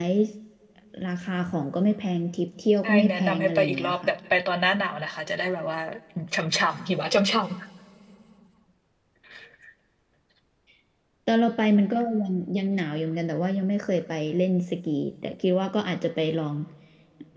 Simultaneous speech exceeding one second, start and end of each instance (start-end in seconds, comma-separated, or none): 2.8-4.1